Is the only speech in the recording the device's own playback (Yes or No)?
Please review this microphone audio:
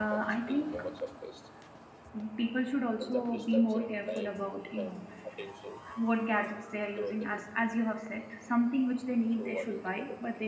No